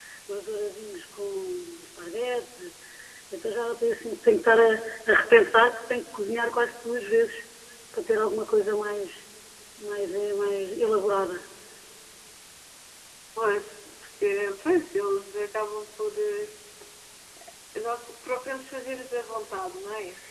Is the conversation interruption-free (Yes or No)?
Yes